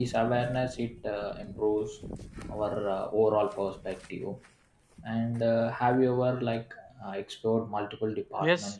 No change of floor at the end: No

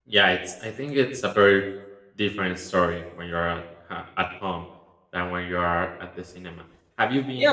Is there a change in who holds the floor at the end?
Yes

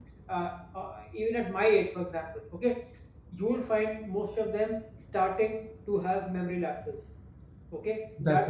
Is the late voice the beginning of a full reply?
No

